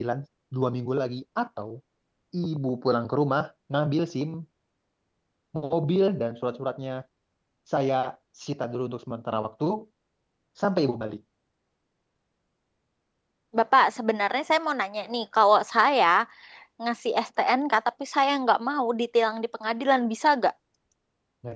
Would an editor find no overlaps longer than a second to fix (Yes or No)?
Yes